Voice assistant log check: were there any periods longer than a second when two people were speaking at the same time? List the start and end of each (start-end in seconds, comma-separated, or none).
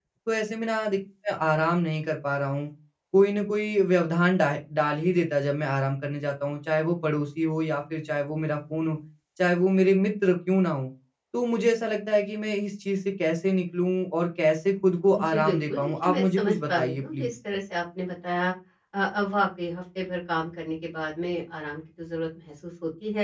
15.3-17.3